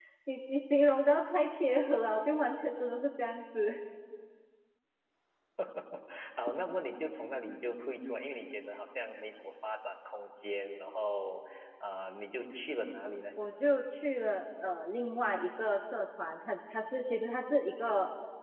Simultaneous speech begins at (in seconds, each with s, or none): none